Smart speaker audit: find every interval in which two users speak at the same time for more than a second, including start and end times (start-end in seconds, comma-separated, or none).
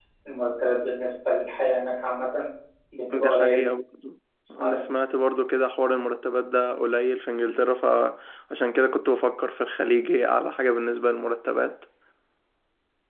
none